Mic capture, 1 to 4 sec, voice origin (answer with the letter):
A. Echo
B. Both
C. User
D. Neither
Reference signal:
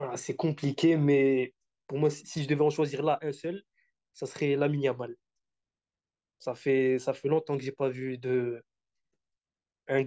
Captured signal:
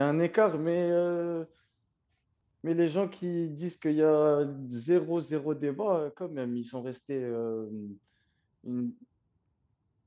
C